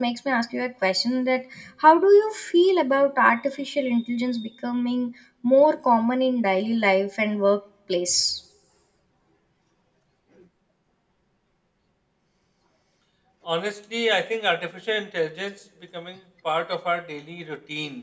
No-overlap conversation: Yes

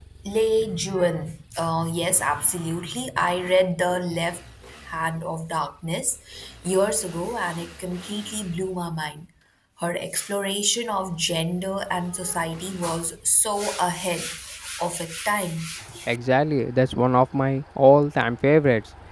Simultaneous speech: No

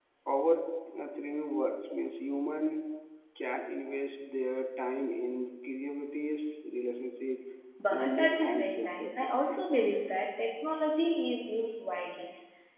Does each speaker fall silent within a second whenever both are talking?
No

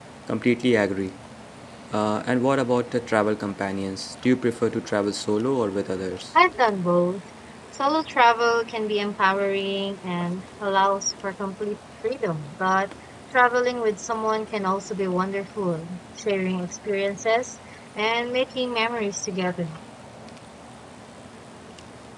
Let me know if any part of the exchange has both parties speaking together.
No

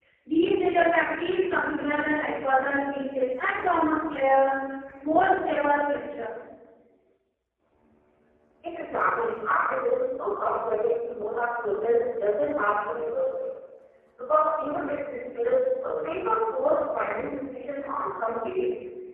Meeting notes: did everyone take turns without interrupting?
Yes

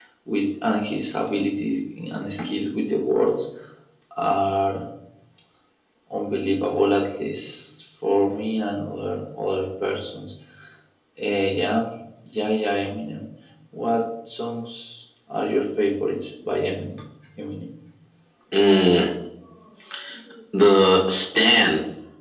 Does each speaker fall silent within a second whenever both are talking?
Yes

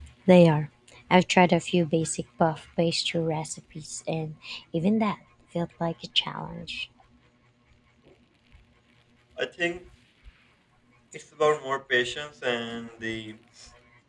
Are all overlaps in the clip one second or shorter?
Yes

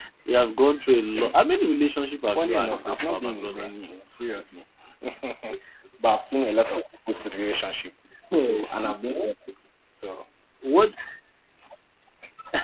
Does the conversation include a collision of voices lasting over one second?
Yes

